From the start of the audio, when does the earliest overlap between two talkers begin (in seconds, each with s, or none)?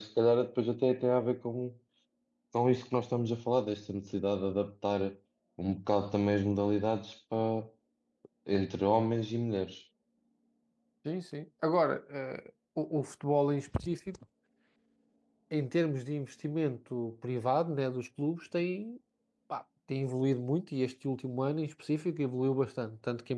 none